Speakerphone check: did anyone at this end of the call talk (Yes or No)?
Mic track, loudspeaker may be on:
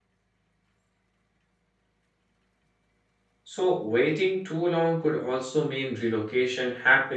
Yes